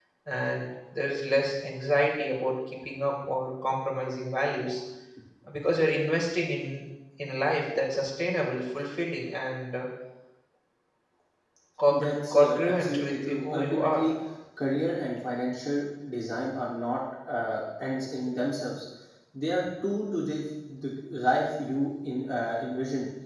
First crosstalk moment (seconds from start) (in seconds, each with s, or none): 11.9 s